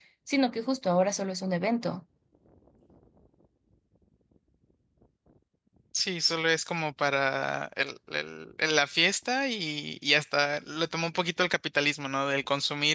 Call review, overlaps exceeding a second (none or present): none